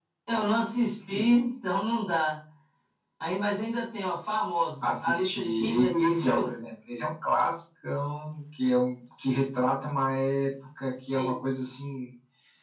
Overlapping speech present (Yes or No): Yes